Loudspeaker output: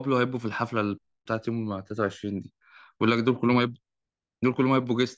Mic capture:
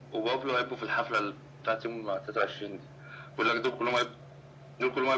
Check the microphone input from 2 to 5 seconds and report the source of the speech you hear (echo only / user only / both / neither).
echo only